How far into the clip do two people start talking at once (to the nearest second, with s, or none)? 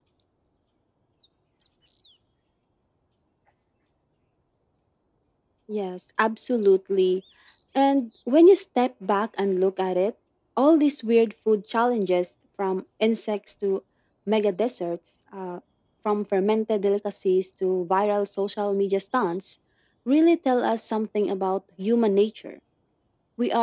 none